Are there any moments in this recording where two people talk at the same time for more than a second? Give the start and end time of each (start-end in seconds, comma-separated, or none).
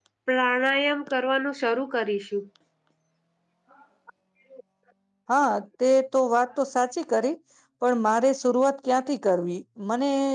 none